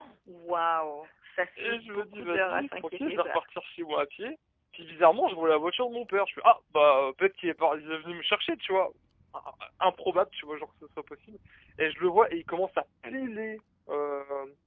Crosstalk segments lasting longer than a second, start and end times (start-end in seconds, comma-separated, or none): 1.6-3.4